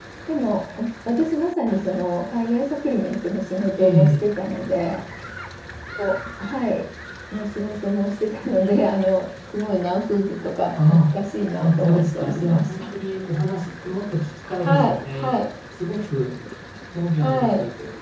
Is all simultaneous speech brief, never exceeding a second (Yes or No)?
No